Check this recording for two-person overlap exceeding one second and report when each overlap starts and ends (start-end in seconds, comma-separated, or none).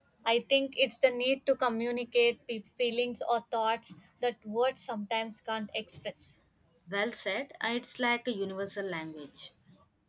none